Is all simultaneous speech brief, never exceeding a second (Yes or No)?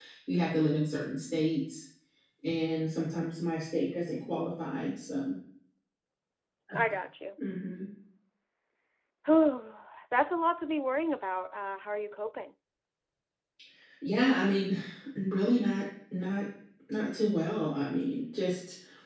Yes